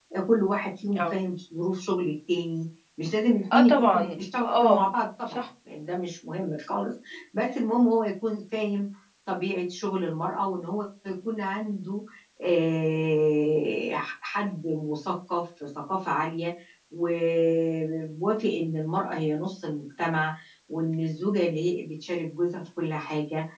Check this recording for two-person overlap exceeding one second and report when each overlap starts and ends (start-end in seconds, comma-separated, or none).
3.5-4.8